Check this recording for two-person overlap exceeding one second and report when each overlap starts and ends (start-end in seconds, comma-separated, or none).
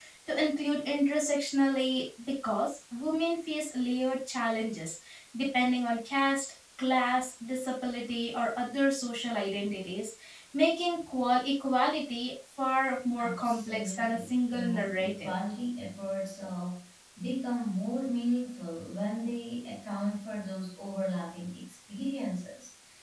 13.2-15.3